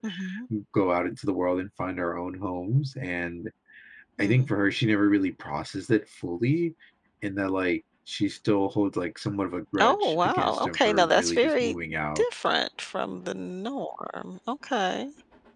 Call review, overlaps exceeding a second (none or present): present